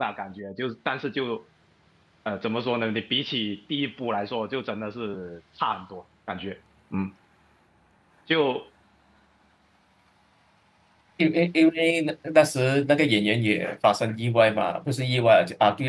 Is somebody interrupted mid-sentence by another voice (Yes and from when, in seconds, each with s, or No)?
No